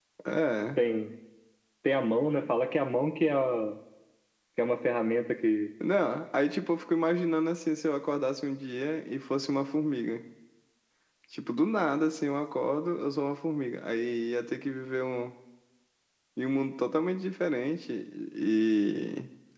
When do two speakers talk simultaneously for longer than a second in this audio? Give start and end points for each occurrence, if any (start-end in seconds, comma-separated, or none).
none